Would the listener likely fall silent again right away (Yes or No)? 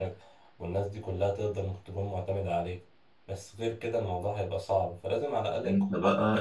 No